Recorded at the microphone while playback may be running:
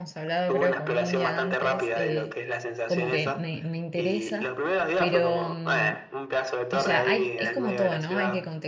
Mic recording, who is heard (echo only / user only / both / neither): both